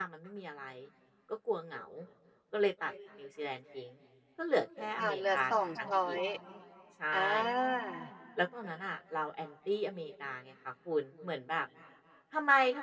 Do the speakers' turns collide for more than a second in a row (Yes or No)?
Yes